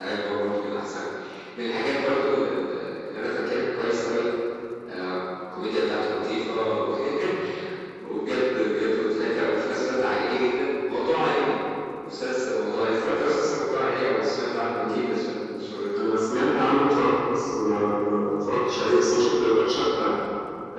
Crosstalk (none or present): none